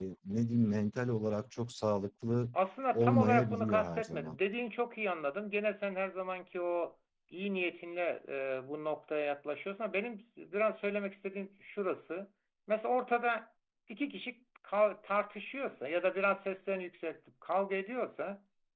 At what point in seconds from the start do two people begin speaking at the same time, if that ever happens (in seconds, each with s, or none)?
2.9 s